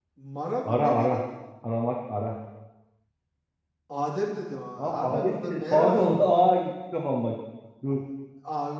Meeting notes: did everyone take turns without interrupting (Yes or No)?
No